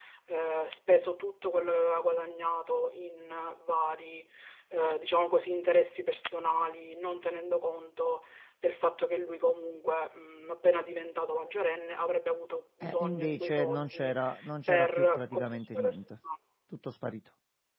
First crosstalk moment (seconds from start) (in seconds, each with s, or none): 12.8 s